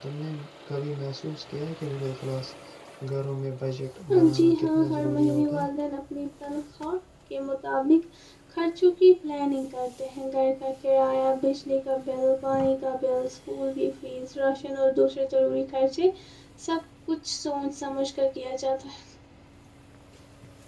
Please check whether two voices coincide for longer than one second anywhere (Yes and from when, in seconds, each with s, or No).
Yes, from 4.1 s